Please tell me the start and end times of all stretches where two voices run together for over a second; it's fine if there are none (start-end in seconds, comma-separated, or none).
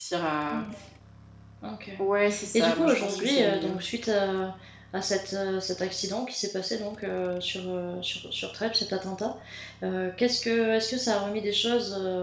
2.5-3.8